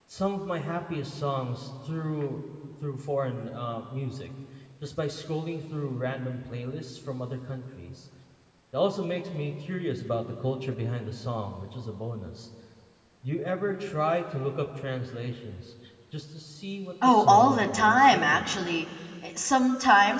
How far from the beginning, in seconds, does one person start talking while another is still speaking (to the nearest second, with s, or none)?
17 s